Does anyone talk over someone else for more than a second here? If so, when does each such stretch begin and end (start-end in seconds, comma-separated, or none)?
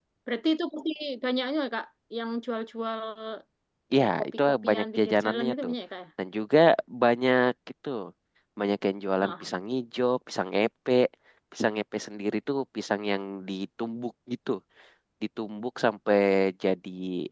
4.0-5.7